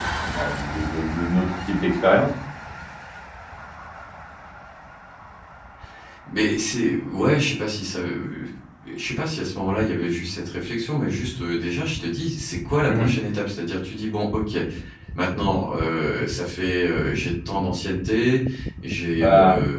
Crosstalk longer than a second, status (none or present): none